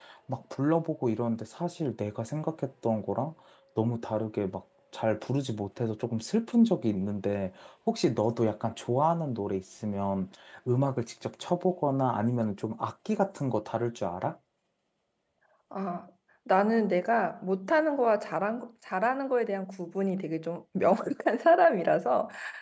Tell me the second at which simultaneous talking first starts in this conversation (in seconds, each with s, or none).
none